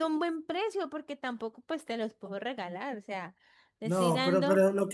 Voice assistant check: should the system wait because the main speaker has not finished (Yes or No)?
No